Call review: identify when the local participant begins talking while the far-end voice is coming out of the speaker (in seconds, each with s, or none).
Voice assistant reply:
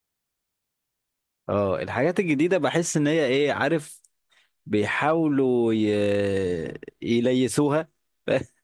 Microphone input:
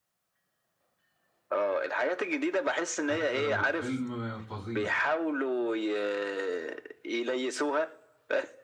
3.0 s